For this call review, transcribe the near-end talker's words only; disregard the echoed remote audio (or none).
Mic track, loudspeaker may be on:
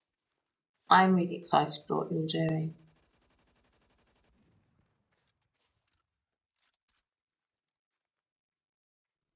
I'm really excited for what you're doing.